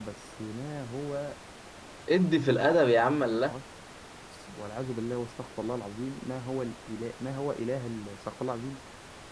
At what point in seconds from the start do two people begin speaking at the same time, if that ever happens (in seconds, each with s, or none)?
none